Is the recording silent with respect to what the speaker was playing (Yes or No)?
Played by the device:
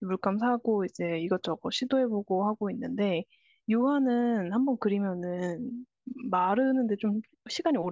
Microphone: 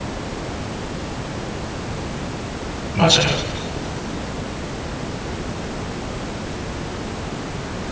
Yes